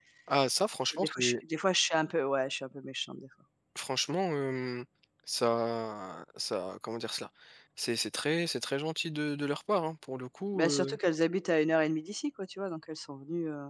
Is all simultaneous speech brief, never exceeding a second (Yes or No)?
Yes